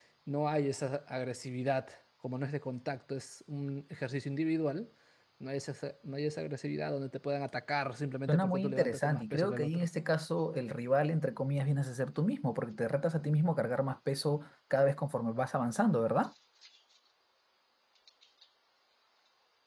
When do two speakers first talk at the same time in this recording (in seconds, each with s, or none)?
8.3 s